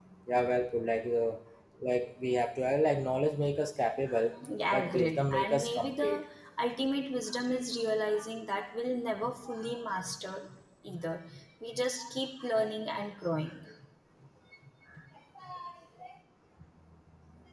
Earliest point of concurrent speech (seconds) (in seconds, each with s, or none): 4.7 s